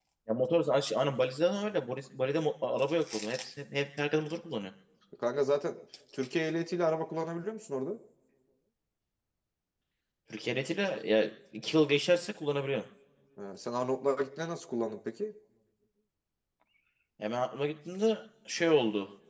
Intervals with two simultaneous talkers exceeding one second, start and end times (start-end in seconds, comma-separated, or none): none